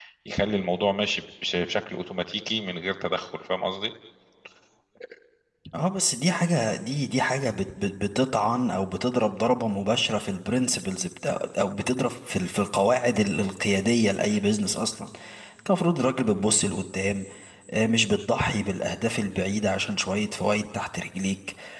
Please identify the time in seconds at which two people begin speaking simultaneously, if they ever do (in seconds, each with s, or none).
none